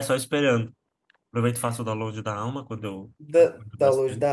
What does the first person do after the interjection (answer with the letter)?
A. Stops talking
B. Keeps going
A